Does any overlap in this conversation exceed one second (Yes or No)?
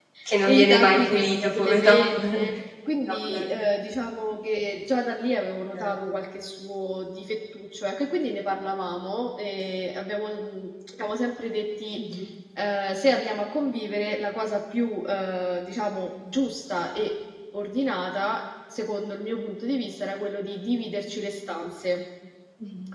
Yes